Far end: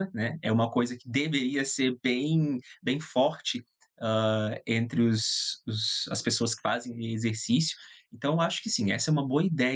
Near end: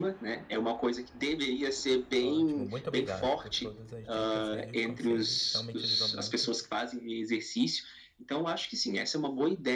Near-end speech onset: 2.2 s

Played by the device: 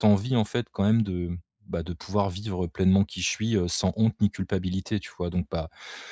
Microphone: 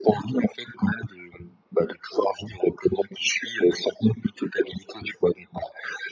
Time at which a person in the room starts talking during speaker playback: none

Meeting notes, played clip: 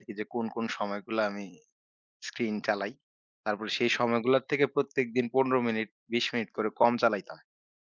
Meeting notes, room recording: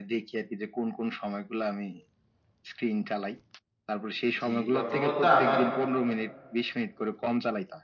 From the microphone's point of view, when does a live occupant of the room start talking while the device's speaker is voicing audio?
4.4 s

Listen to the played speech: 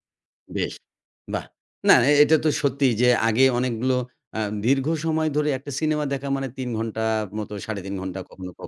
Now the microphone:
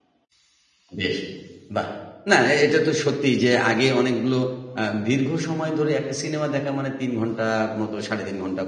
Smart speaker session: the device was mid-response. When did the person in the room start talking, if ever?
none

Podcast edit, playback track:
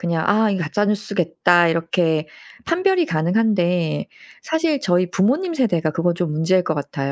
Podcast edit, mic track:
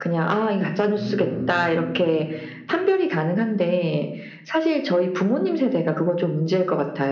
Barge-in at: 0.9 s

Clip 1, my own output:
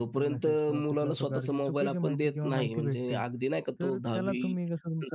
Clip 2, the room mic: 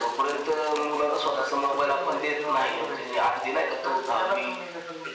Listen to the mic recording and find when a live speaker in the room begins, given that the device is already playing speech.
none

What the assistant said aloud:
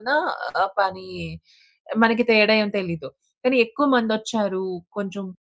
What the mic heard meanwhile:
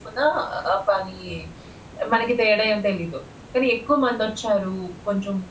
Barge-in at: none

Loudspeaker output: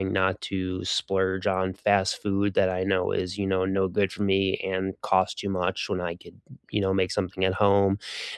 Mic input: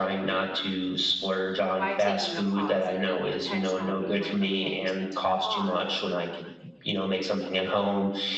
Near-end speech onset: 1.7 s

